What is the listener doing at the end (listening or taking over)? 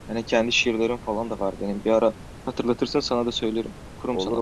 taking over